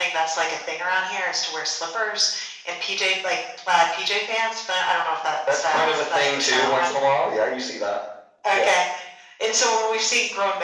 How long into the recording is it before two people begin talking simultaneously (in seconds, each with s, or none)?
5.5 s